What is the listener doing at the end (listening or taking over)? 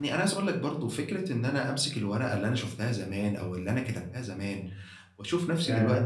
listening